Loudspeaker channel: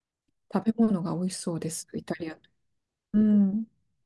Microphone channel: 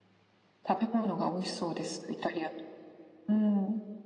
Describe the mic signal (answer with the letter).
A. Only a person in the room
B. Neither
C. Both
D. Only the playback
D